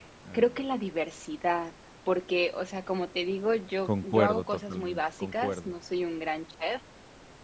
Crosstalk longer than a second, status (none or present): present